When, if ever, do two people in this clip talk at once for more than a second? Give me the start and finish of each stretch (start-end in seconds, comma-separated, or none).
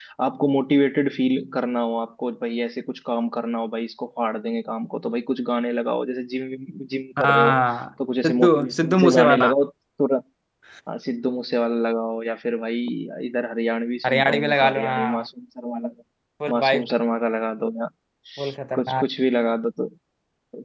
8.2-9.5, 14.0-15.3